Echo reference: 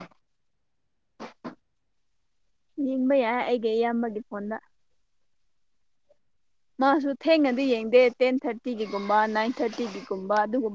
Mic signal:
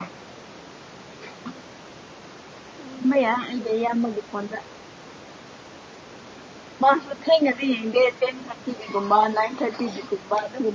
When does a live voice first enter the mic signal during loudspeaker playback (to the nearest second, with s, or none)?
none